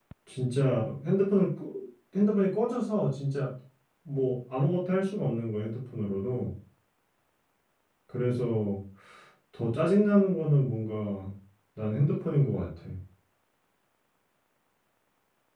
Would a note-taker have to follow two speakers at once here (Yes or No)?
No